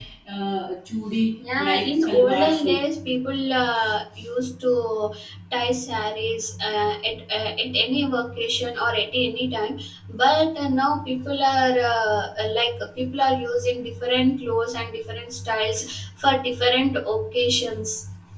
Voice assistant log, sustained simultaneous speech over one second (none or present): present